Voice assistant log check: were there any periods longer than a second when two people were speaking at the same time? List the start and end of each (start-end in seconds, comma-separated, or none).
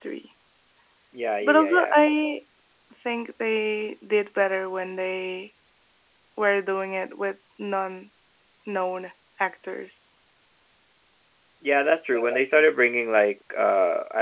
none